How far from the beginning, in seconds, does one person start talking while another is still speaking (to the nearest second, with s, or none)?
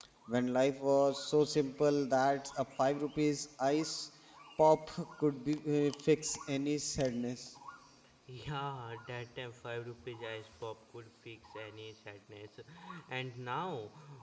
none